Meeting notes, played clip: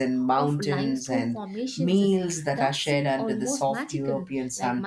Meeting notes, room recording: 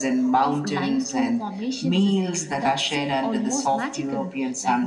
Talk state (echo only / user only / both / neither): echo only